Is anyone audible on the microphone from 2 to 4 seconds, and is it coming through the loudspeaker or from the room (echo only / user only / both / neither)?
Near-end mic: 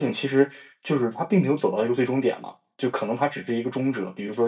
user only